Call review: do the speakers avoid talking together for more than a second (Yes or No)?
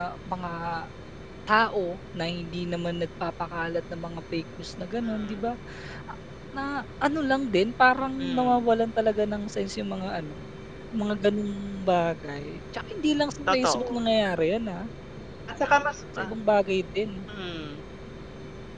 Yes